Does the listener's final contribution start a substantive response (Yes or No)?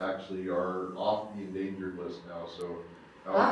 Yes